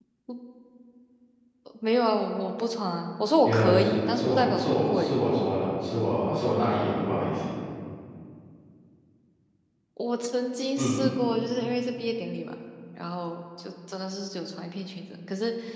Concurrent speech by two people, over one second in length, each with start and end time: 3.4-5.1

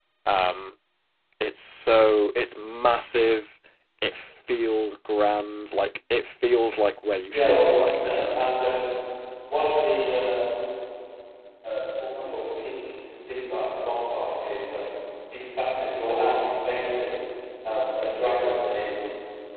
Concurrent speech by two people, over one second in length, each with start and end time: 7.3-8.6

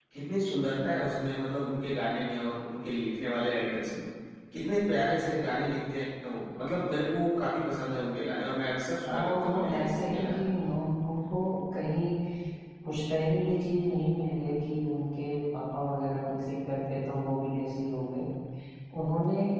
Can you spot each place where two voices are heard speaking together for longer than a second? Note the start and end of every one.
9.1-10.4

